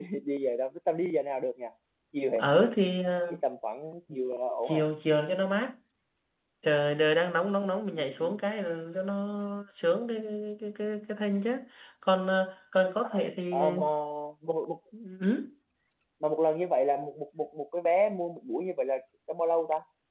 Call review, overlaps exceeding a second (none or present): none